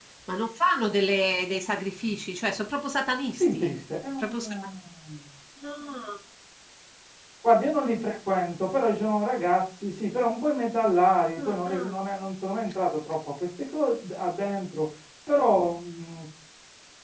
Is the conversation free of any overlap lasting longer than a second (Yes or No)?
Yes